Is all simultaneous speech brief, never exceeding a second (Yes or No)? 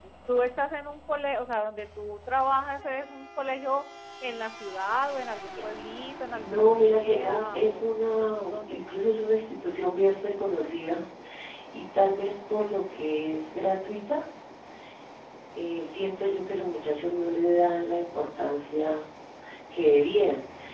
No